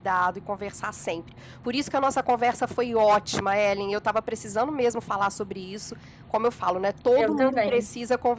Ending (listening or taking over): listening